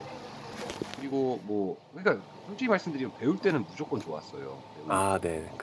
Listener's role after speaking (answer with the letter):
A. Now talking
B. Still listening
A